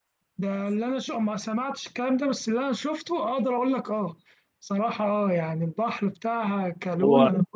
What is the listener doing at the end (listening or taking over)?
listening